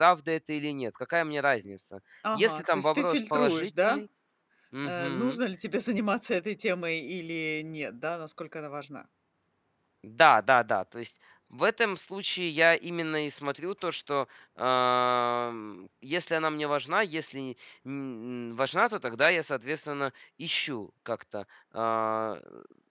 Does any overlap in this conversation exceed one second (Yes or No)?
Yes